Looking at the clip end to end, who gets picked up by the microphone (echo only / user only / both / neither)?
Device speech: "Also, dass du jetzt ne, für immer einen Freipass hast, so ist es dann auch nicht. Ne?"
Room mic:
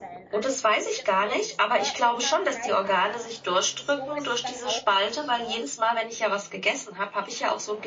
both